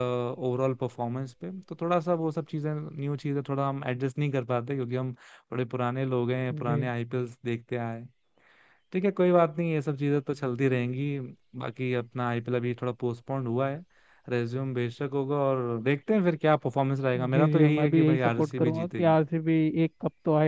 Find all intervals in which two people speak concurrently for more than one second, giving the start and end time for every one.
17.3-19.2

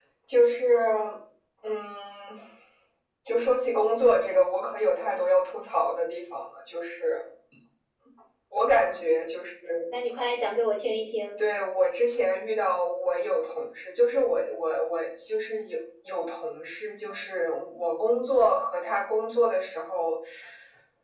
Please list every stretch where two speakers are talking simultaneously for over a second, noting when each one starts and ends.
none

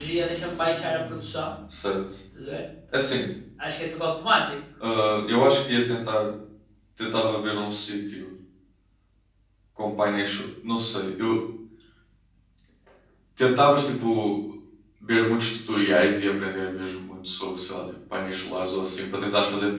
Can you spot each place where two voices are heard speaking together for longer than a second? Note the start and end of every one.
none

